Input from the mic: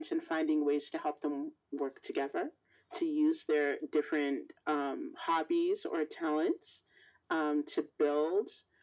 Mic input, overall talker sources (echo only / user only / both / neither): echo only